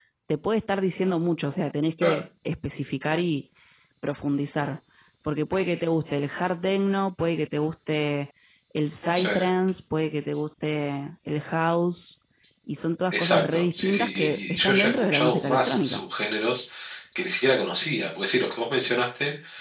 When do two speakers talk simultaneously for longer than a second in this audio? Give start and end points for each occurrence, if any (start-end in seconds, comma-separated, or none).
13.1-16.0